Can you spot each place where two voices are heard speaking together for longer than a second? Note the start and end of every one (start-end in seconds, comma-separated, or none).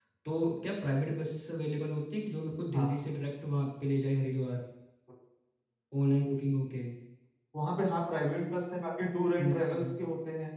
none